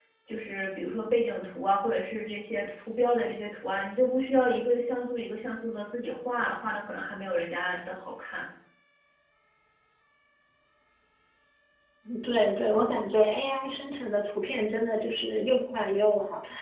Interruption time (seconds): none

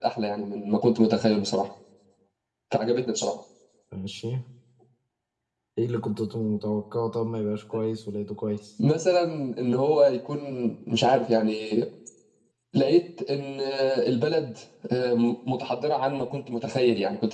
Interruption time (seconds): none

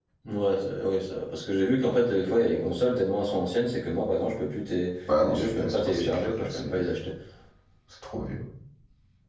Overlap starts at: 5.1 s

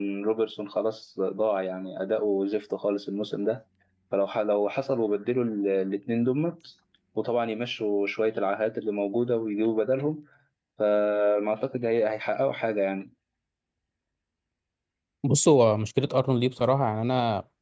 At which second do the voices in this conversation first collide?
none

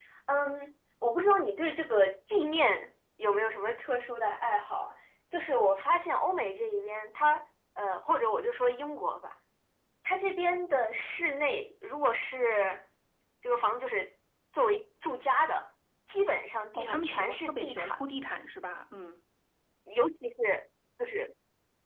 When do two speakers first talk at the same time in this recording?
16.7 s

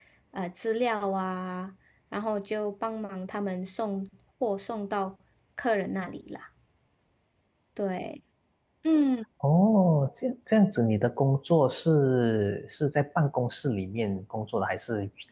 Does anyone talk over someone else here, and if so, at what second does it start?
none

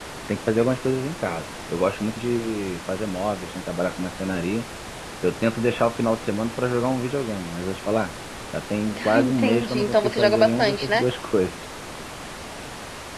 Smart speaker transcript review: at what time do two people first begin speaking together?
9.0 s

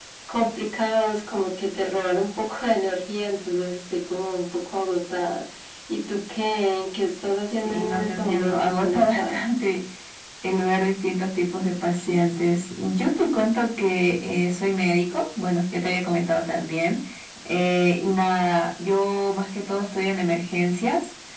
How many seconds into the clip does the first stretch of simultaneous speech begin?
7.6 s

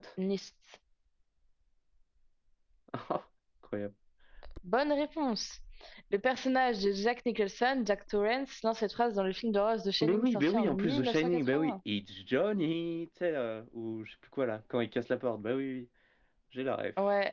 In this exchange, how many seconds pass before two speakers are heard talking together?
10.0 s

